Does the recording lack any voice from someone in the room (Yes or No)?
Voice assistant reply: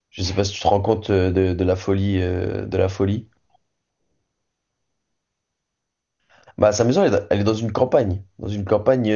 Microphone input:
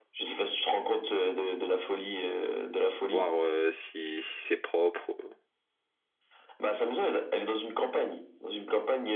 No